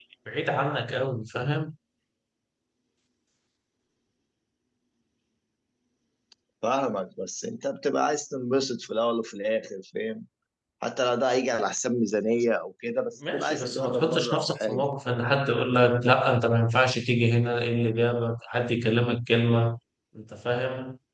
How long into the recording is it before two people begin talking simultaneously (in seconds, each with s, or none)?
13.2 s